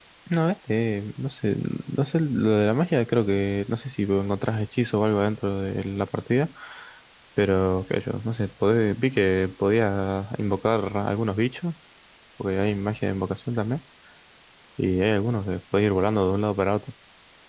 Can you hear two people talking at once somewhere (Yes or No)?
No